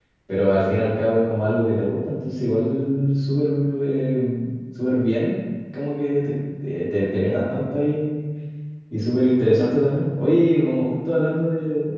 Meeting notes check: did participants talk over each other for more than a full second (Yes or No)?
No